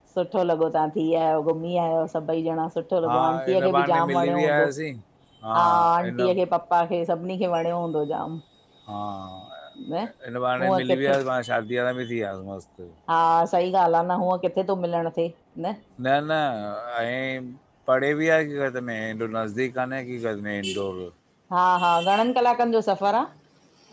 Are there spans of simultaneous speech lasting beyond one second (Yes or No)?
Yes